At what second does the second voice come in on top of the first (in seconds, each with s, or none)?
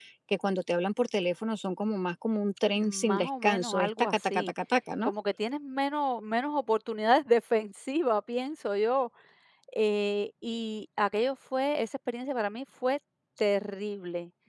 2.8 s